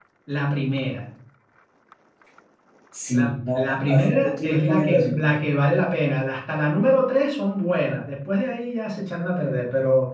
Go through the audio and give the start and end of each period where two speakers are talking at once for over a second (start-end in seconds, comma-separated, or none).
3.1-5.3